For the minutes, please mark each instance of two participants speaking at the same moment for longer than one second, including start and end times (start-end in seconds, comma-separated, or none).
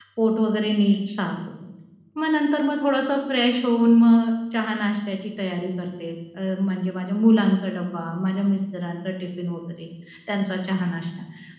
none